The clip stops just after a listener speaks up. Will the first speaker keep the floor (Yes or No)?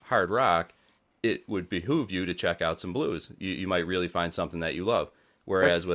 Yes